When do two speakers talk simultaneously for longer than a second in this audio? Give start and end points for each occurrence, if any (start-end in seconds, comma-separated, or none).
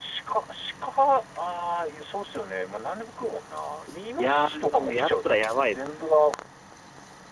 4.2-6.1